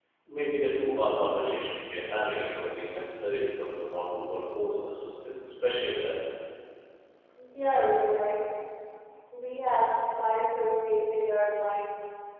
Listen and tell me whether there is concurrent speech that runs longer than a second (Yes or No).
No